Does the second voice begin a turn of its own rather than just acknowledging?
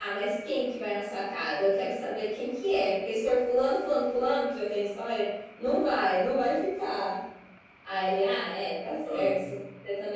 No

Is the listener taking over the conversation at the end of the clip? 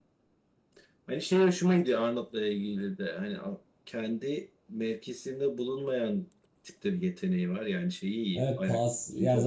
Yes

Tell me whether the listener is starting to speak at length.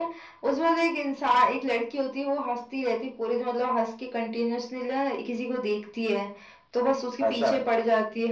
No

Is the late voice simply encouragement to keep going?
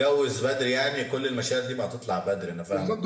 No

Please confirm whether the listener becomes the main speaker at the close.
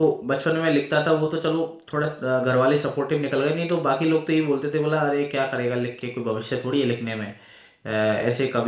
No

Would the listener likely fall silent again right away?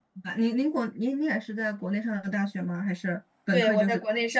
No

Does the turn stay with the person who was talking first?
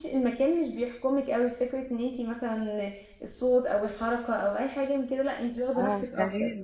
No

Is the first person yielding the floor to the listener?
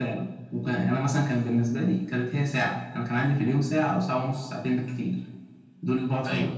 No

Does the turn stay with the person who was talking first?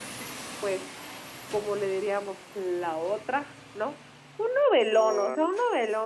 Yes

